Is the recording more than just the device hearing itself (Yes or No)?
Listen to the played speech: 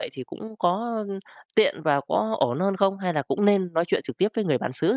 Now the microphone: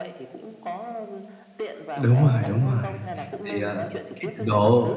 Yes